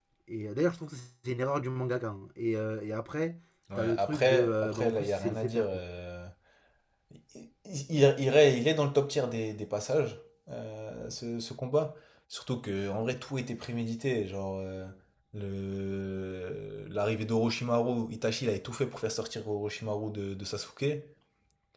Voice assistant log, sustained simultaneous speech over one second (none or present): present